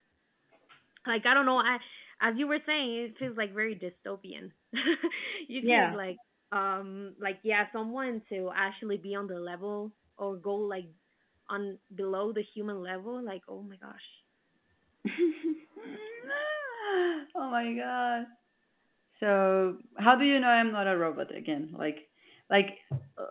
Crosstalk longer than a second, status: none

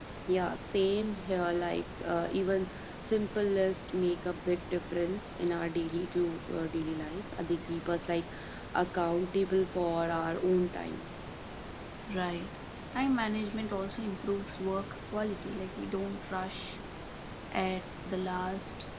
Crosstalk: none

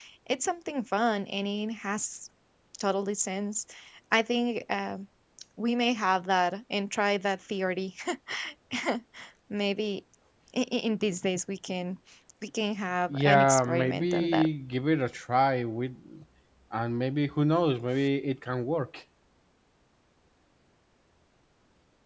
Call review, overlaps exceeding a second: present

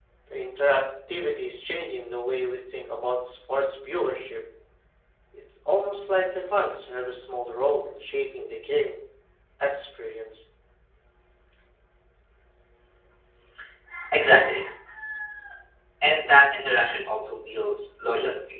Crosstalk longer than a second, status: none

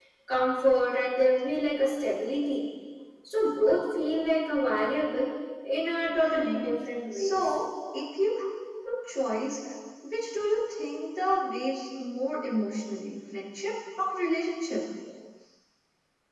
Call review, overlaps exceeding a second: none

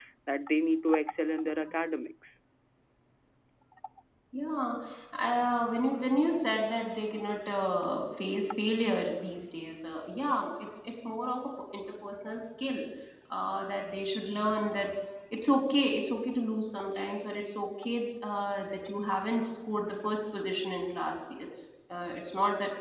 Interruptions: none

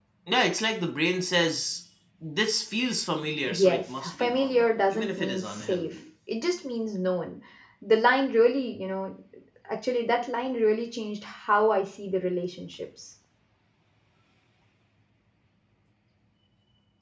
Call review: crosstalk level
present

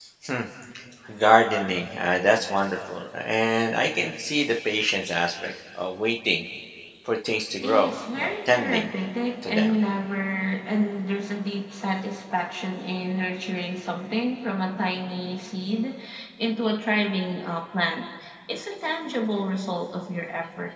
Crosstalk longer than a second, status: present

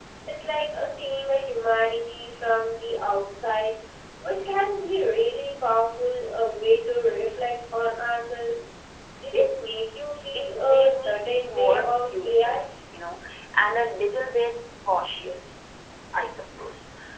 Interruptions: present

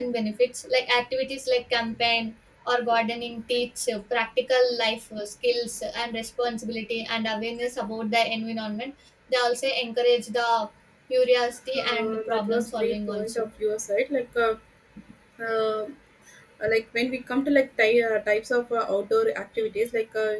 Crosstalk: present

